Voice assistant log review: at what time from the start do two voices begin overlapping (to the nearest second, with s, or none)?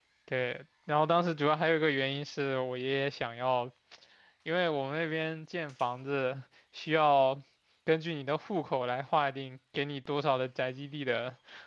none